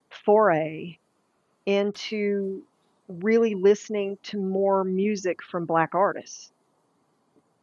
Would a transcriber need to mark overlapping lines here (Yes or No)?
No